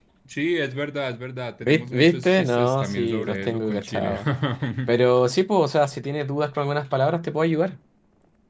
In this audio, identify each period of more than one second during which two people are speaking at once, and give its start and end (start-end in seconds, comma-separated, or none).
1.6-4.1